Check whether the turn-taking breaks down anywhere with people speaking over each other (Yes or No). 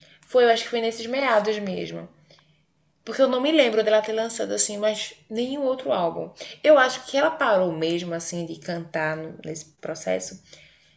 No